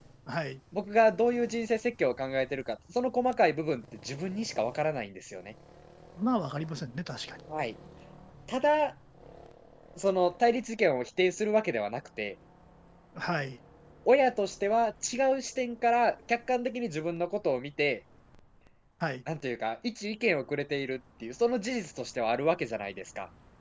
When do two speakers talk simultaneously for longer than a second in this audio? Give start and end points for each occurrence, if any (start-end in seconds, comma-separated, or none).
none